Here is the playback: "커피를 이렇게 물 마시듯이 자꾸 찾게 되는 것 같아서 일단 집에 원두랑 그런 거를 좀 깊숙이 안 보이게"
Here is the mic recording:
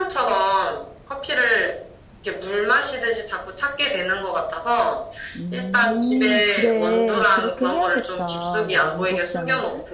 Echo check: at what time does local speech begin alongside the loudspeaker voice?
5.4 s

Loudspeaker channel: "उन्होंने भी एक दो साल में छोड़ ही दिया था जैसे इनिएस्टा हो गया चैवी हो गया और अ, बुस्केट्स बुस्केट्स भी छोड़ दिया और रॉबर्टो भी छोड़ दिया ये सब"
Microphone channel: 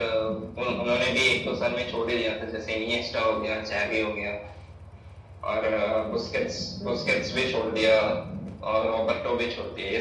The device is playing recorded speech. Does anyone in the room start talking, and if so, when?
none

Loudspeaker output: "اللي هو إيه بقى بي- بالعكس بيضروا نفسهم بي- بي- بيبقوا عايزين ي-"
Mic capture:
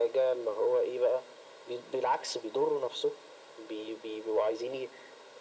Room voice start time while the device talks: none

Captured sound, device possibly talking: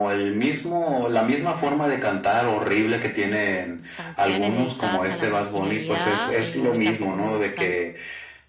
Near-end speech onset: 3.9 s

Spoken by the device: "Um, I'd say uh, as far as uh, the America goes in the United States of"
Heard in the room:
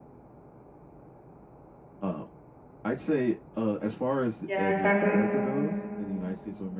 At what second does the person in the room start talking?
4.5 s

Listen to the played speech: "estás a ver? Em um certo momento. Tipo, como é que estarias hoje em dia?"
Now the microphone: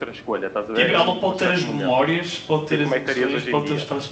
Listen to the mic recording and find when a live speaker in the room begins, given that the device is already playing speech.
0.7 s

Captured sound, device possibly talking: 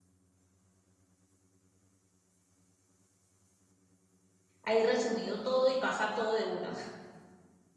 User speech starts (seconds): 4.6 s

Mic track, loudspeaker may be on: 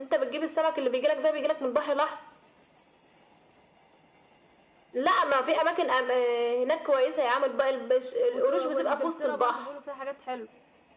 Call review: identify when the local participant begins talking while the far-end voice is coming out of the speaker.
8.3 s

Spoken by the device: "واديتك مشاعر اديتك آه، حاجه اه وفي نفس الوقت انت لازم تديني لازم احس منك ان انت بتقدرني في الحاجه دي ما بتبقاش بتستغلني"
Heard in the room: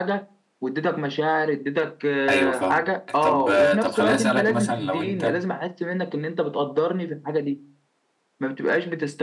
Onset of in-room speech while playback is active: 2.3 s

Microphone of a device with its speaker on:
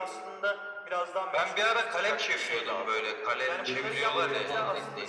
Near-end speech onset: 3.7 s

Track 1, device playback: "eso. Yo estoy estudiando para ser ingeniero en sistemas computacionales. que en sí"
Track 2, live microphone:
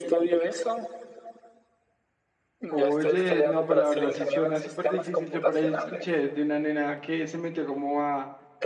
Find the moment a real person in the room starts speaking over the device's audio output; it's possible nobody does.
2.7 s

